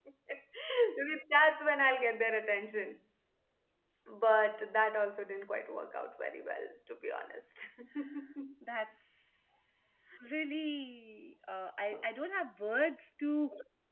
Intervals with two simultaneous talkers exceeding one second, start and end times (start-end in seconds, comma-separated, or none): none